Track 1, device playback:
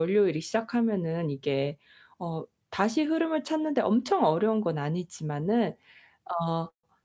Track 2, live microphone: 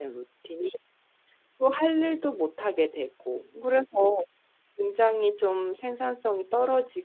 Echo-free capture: Yes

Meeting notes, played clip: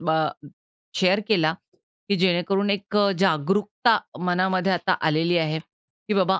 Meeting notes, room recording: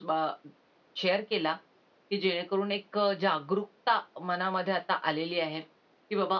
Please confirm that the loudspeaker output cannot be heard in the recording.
No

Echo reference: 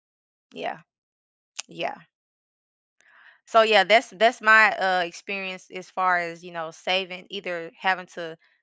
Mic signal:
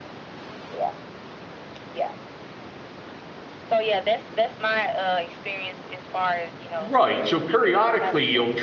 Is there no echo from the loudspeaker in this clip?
No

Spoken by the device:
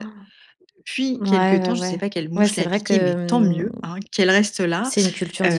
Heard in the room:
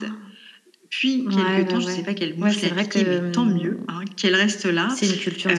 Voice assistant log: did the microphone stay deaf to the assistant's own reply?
No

